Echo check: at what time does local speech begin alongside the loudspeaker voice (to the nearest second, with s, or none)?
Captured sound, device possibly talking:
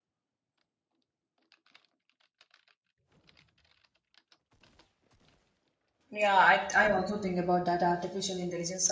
6 s